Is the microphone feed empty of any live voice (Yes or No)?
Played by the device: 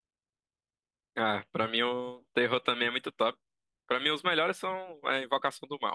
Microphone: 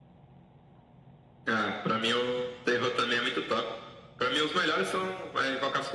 Yes